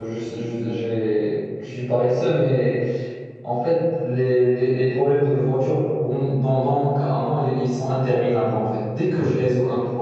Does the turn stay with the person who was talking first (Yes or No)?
Yes